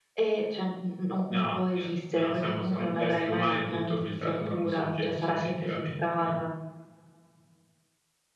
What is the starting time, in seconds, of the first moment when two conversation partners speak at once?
1.3 s

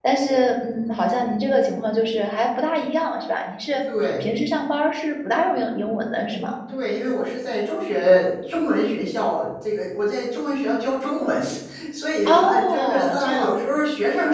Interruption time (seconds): 12.2 s

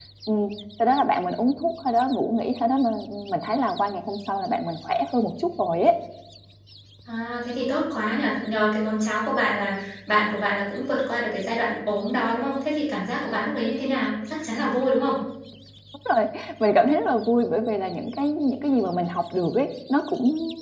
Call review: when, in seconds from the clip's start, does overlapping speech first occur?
none

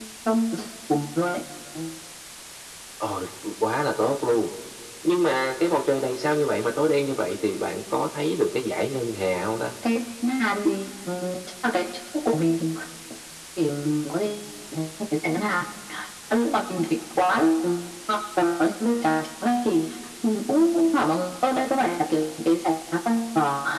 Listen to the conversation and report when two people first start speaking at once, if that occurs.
none

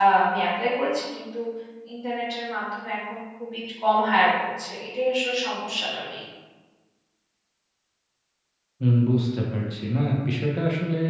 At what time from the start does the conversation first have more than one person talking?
none

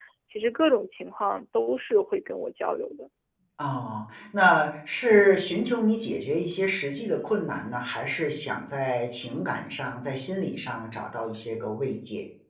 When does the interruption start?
none

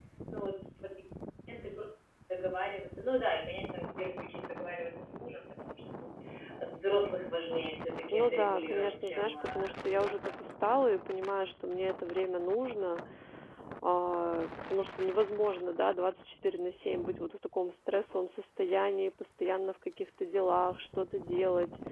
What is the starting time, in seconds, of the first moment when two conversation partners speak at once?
8.1 s

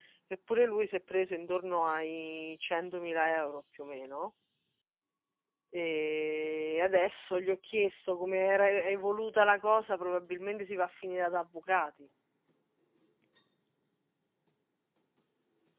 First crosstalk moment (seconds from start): none

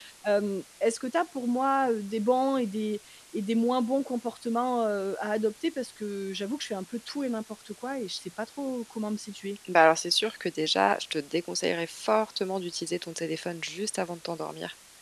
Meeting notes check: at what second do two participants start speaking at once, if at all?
none

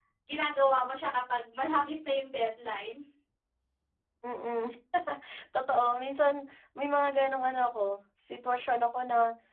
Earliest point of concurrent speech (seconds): none

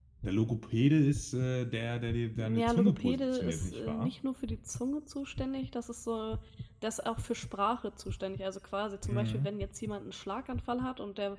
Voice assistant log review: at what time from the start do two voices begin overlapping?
2.4 s

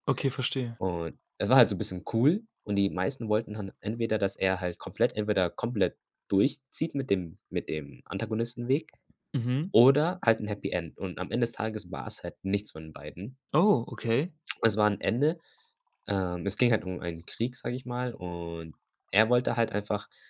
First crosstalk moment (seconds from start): none

